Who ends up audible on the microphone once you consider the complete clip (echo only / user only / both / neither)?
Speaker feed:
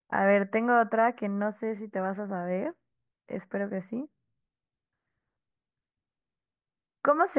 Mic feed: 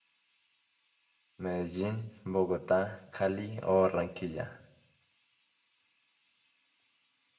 user only